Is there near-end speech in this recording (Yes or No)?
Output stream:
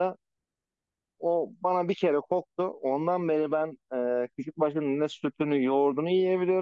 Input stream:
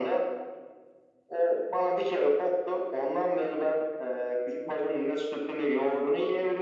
No